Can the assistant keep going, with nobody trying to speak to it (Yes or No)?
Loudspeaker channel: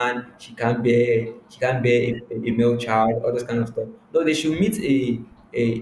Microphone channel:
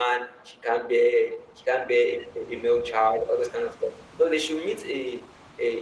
Yes